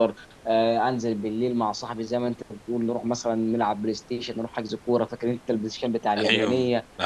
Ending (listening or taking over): taking over